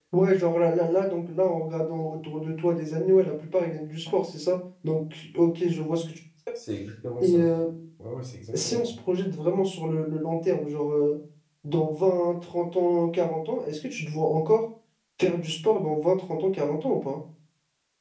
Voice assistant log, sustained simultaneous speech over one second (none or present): none